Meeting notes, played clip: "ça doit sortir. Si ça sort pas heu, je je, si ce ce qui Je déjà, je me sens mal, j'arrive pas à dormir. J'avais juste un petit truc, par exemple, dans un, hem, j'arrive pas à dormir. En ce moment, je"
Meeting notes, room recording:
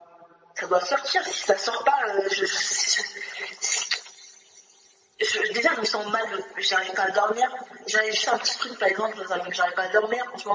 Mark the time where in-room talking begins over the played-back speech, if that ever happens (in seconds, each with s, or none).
none